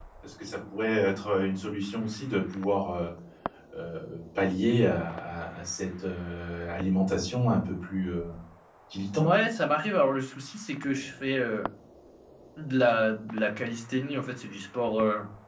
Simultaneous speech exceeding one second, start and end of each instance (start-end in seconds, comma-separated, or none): none